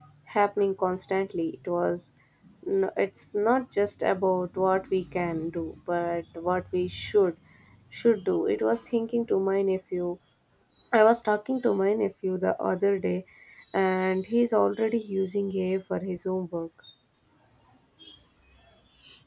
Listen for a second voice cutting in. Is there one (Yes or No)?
No